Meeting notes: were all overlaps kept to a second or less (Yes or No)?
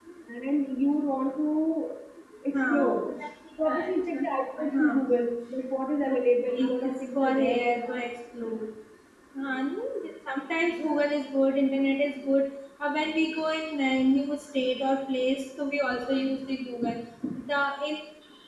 No